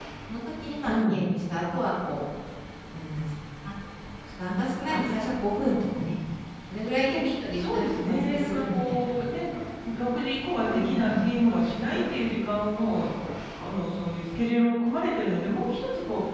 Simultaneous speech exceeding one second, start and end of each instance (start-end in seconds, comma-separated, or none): 7.6-9.1